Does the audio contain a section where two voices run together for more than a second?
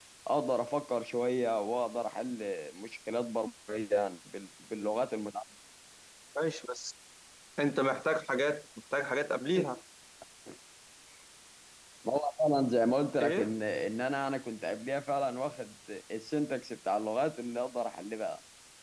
No

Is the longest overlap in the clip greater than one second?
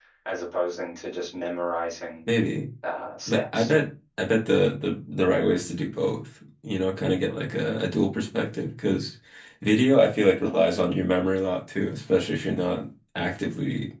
No

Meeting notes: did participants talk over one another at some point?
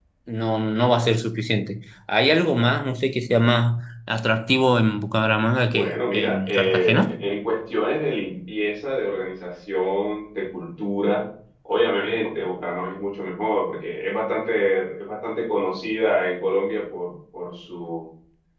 Yes, from 5.7 s

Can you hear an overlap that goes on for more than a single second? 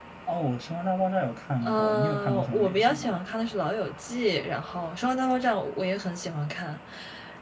Yes, from 1.6 s

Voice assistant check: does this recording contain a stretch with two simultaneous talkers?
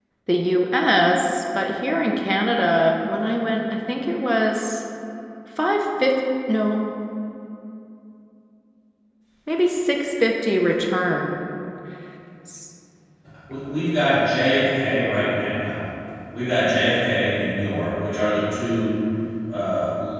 No

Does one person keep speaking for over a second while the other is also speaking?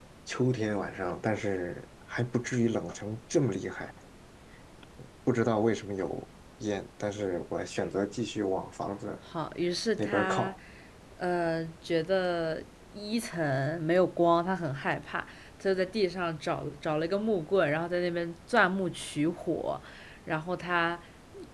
No

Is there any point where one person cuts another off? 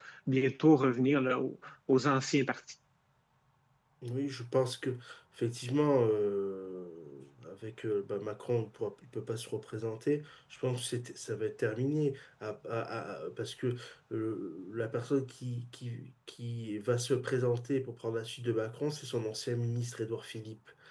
No

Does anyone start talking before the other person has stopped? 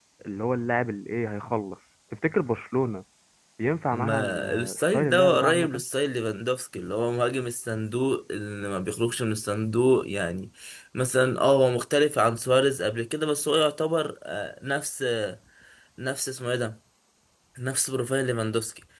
Yes, from 3.9 s

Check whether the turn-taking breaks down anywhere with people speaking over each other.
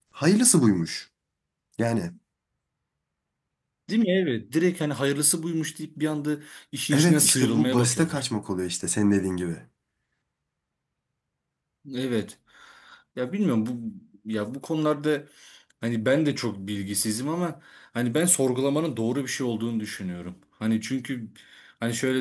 Yes, from 6.9 s

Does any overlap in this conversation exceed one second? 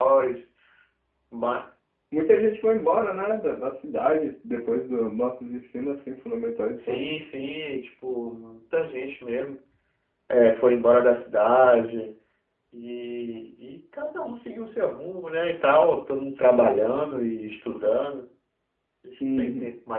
No

